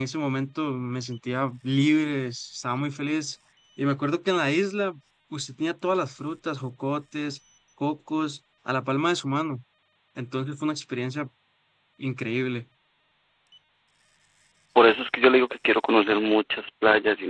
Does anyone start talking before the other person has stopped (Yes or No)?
No